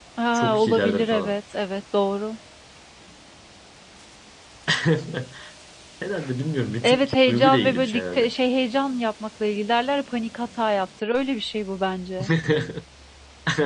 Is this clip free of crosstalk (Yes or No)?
No